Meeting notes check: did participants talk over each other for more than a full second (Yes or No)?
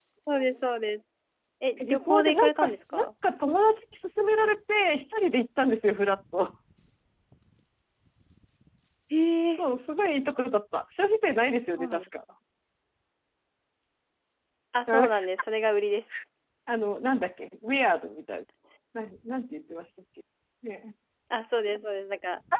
Yes